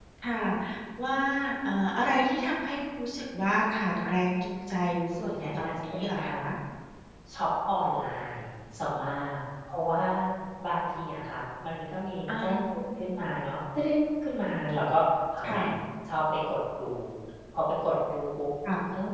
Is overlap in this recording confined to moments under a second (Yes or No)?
No